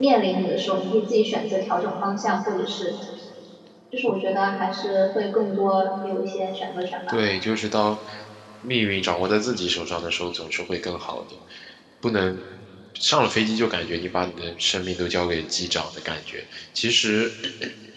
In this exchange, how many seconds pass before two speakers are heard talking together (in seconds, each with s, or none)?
none